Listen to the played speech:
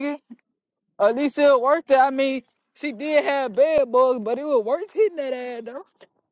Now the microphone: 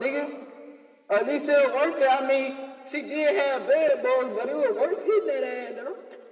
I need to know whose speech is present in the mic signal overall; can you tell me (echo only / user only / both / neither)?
echo only